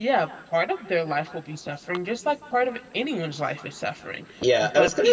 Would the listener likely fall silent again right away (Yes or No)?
No